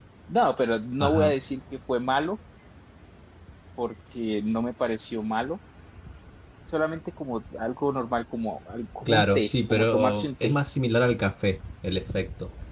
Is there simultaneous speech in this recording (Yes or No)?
Yes